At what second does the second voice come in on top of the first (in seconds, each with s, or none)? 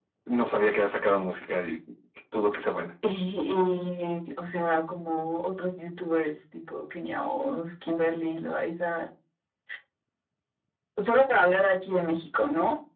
none